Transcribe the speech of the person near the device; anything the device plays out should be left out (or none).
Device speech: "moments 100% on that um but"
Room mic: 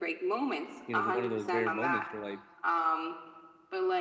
you know, one of those rare moments where like